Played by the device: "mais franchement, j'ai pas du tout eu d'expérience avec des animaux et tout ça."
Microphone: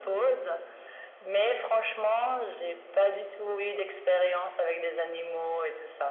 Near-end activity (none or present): none